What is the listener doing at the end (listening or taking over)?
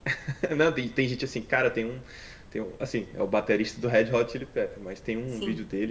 listening